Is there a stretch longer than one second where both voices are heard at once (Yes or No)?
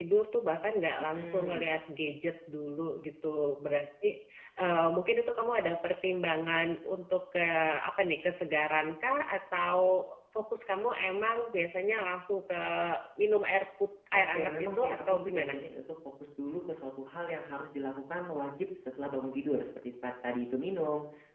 Yes